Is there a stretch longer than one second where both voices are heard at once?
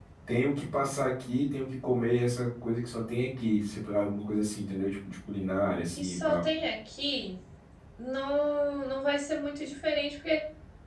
No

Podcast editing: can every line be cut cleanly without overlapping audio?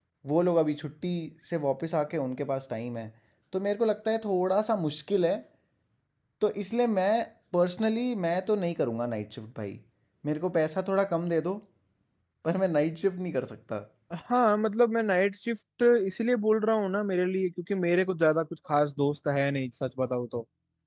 Yes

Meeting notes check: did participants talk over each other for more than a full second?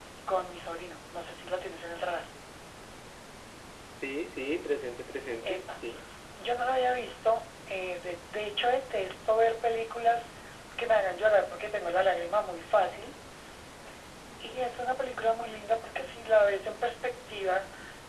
No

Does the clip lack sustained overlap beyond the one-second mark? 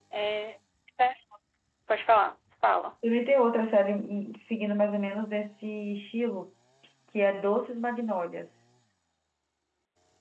Yes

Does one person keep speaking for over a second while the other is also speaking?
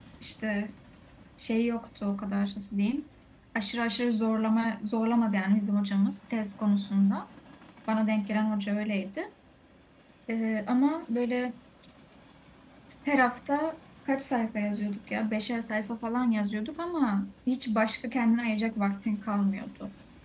No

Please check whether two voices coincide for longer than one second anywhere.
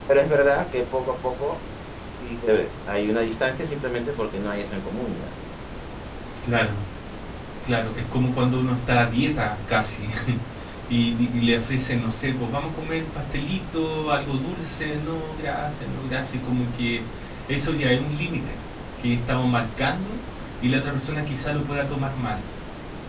No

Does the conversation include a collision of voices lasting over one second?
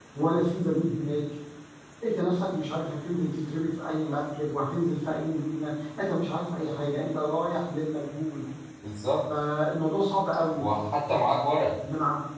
No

